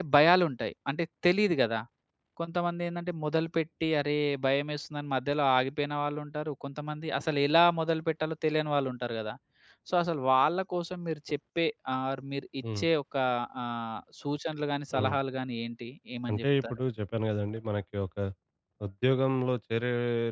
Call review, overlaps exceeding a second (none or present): none